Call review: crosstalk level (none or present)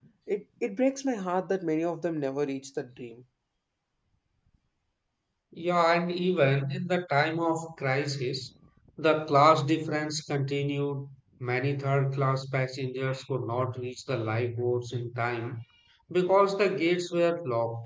none